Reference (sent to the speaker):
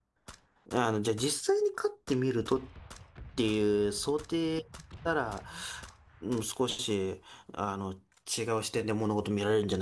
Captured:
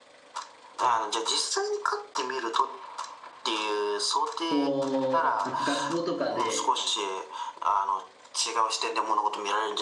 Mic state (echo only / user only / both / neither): both